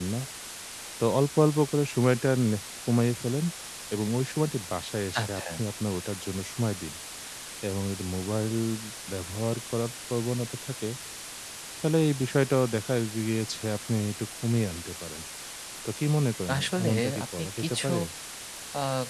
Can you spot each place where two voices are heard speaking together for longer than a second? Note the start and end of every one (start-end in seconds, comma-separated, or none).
16.6-17.9